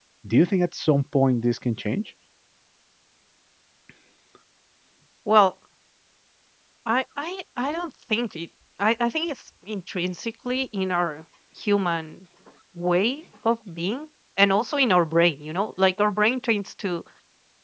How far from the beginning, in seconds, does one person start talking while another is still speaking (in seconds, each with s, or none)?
none